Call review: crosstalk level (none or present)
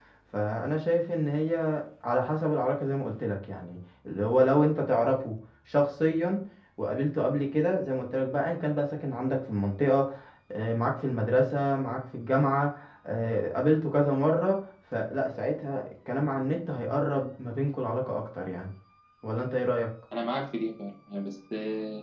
none